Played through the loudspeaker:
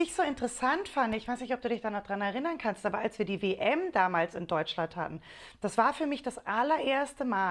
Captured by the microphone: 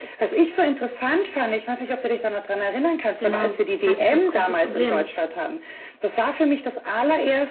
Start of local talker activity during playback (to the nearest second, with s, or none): 3 s